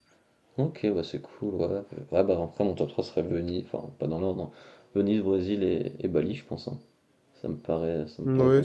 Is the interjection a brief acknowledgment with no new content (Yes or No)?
No